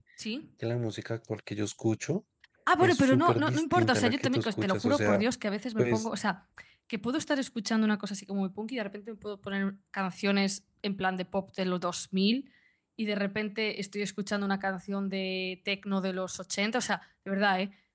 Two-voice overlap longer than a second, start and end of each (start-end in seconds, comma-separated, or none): 2.8-5.2